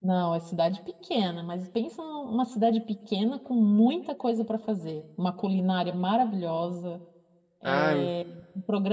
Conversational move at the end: listening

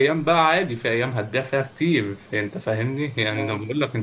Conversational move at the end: listening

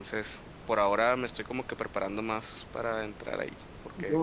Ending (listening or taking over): taking over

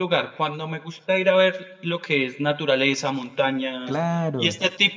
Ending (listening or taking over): listening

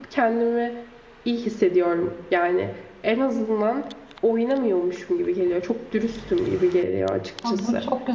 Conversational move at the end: taking over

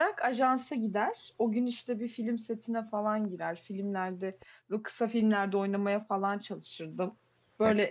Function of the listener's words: listening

